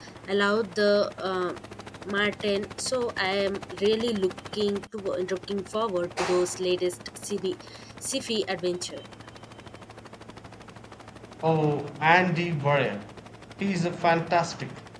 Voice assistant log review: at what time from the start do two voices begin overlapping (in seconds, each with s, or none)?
none